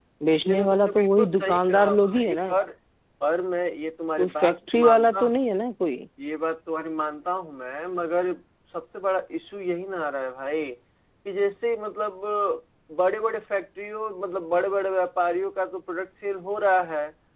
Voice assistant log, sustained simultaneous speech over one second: present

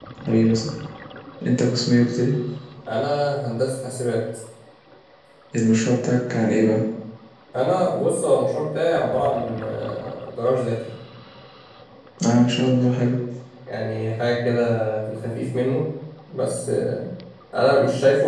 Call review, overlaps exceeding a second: none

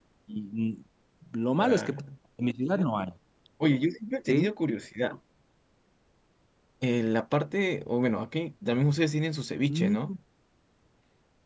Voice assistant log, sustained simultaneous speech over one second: none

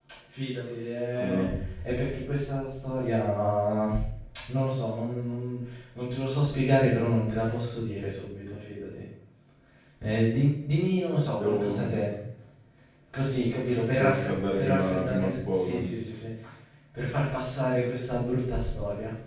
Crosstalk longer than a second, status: present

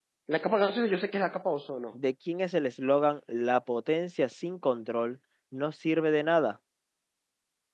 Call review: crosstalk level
none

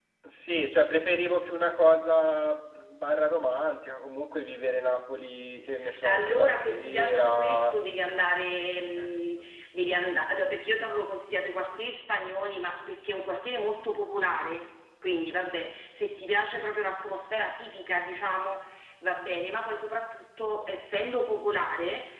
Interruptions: present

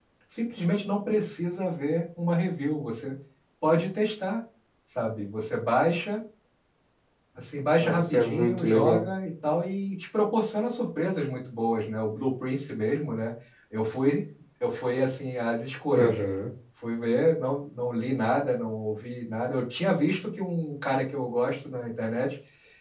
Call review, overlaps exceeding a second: present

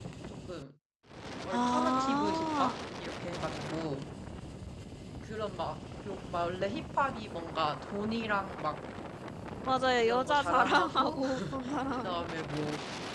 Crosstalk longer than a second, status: present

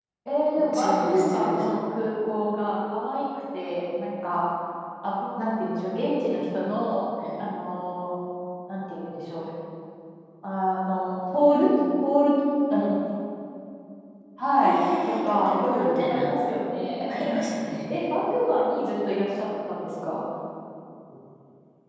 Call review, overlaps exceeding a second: present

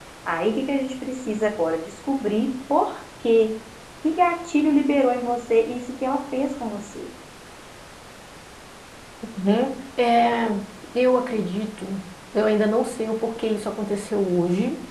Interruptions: none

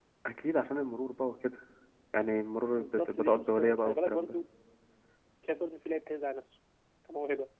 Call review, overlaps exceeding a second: present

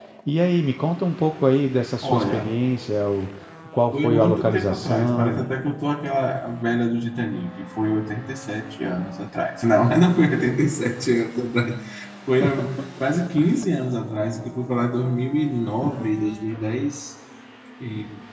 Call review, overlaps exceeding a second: present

